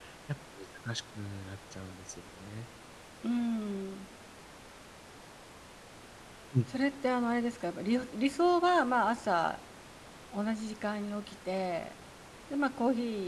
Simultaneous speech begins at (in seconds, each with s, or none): none